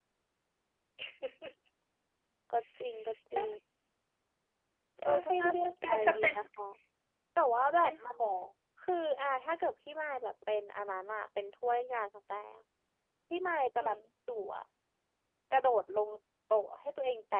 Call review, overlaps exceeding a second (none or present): present